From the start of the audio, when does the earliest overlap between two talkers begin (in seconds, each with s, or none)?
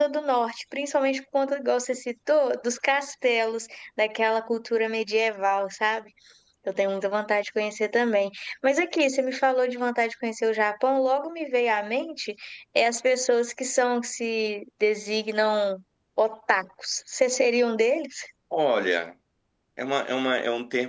none